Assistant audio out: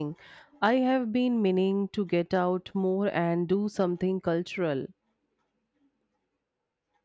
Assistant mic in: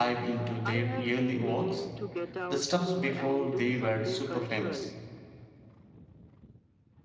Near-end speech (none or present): present